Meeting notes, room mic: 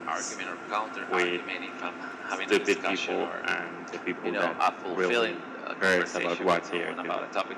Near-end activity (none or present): none